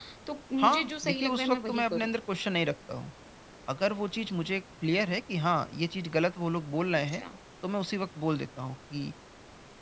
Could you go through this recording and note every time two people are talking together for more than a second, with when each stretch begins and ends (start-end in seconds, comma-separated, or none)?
0.6-2.1